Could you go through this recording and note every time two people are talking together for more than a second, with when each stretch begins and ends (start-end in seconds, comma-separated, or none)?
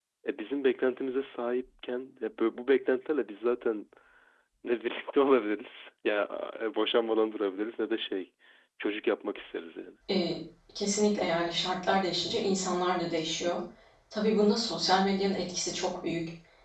none